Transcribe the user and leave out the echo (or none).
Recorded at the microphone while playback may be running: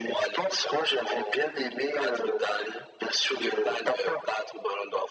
none